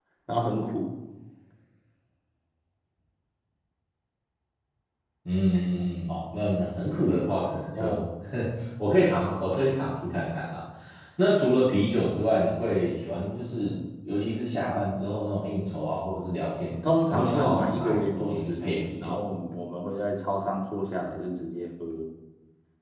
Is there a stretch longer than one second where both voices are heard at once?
Yes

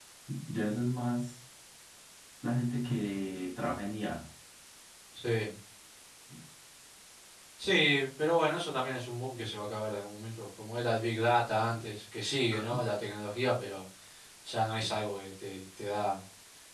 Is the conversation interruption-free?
Yes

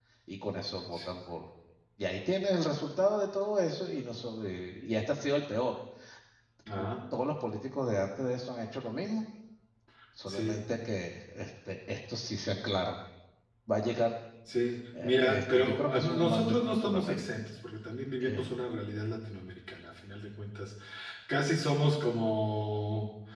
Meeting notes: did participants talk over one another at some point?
Yes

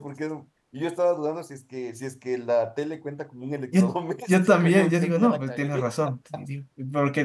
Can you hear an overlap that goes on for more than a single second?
Yes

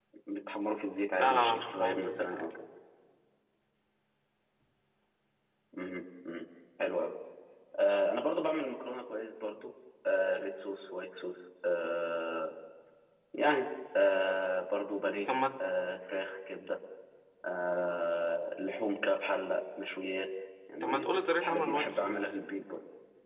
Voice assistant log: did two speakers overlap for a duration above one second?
Yes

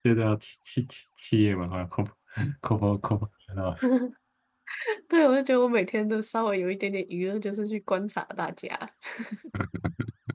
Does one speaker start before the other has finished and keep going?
No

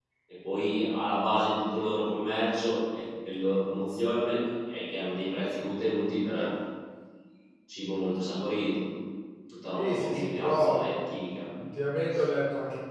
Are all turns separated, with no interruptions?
No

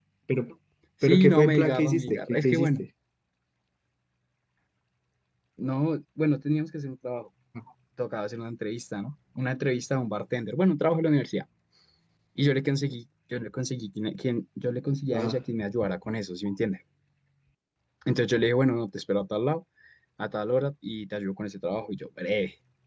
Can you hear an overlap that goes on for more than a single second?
Yes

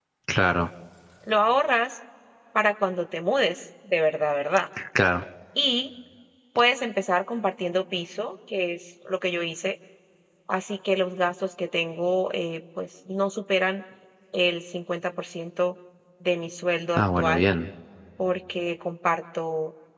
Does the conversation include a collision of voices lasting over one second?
No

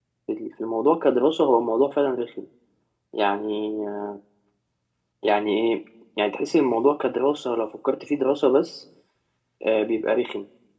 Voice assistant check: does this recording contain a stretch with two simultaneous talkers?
No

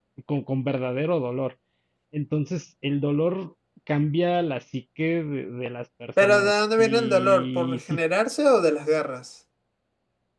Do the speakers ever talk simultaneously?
Yes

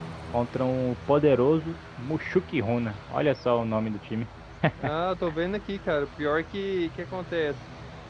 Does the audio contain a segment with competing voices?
No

